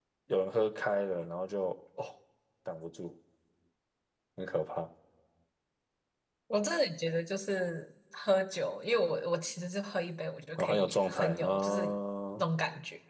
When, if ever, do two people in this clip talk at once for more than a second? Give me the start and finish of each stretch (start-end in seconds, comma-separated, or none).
10.6-11.8